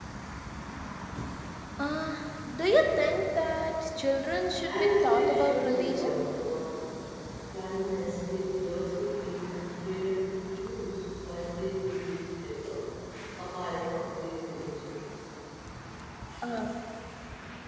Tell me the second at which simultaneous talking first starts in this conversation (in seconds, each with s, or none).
4.7 s